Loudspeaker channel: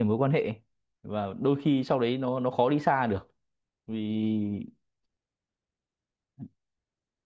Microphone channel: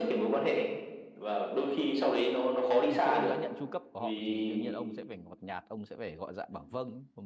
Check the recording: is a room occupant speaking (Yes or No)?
Yes